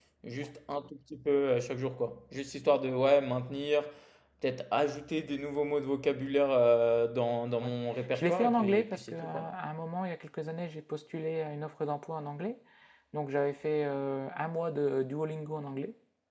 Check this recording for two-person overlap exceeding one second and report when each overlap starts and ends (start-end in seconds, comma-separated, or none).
8.1-9.5